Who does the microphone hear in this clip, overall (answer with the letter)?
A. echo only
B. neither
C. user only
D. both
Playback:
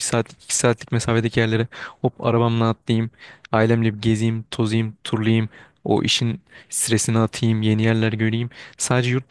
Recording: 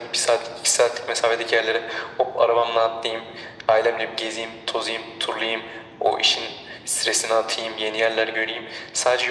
A